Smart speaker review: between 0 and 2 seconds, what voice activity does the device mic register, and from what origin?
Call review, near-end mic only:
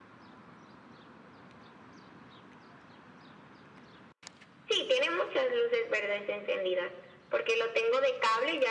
neither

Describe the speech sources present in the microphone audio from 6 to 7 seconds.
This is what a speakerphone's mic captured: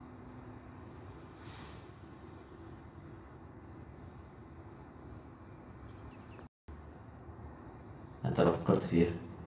neither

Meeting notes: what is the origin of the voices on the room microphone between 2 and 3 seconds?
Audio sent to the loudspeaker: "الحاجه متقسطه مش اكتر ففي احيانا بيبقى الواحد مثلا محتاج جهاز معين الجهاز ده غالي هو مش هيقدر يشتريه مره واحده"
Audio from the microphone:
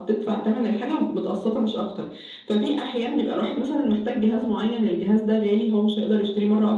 echo only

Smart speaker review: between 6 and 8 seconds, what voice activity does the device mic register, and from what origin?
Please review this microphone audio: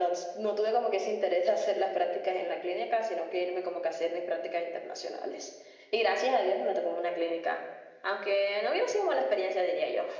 echo only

